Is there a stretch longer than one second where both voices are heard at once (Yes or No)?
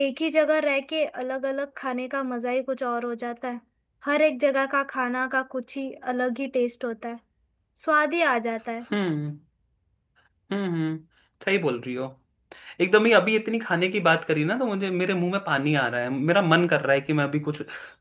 No